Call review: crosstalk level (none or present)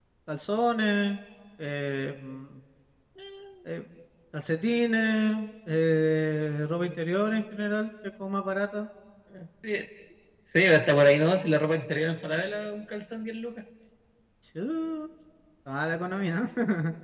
none